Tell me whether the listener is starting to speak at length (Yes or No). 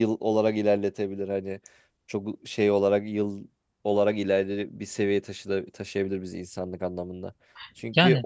No